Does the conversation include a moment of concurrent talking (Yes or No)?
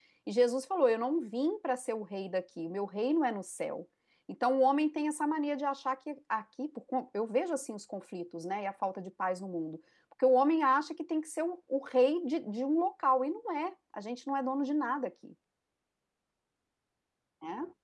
No